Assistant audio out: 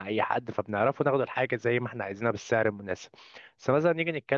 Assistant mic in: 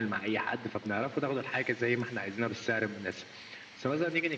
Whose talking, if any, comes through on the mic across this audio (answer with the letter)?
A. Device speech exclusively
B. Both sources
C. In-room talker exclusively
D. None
A